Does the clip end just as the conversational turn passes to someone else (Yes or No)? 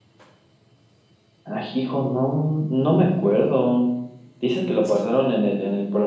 No